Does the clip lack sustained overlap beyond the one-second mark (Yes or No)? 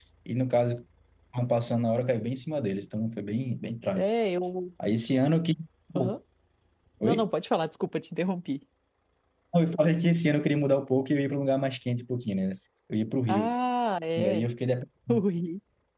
Yes